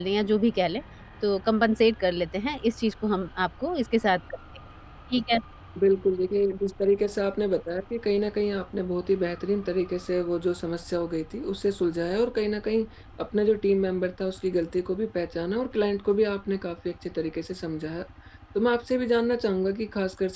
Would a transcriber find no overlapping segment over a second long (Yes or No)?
Yes